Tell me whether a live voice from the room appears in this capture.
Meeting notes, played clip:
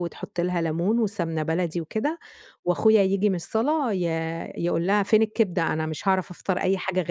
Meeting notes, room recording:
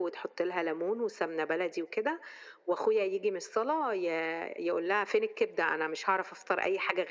No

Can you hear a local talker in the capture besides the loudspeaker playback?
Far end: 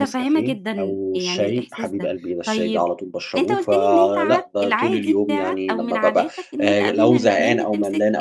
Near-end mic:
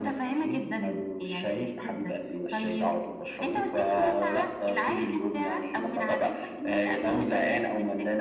No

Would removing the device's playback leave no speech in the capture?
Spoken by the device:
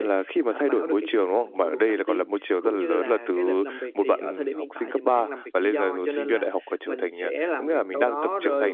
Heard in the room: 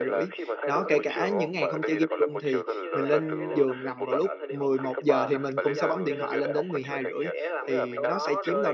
No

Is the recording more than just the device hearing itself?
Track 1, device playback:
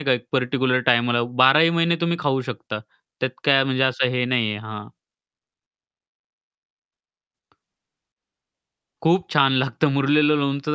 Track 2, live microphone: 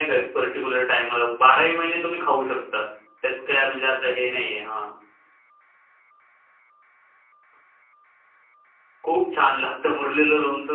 No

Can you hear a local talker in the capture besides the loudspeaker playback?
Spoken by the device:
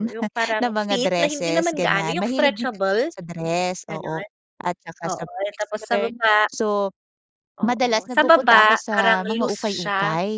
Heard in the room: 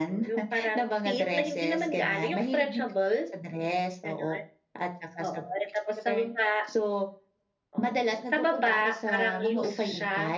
No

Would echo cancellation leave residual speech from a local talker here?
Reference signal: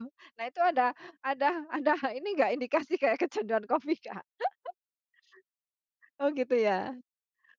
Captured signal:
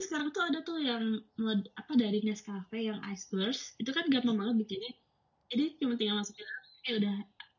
Yes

